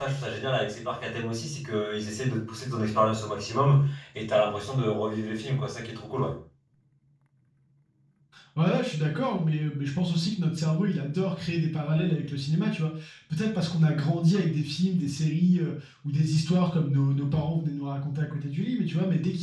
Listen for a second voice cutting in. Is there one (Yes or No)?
No